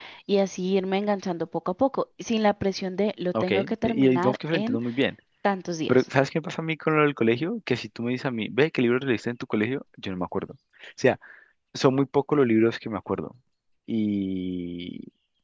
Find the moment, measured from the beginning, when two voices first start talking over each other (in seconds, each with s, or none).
3.3 s